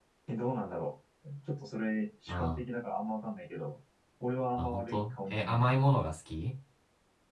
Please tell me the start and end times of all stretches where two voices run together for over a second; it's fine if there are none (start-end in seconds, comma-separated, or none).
4.6-5.8